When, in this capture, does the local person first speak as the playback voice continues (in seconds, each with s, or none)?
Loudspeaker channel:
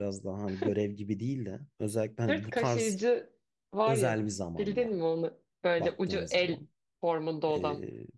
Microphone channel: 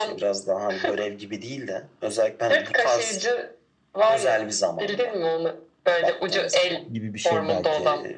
6.9 s